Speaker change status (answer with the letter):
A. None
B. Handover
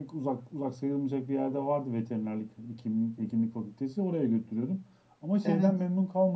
A